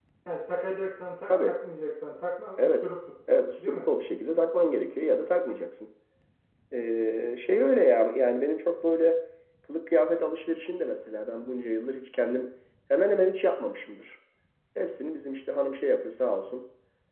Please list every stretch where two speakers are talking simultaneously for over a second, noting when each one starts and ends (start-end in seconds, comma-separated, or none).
none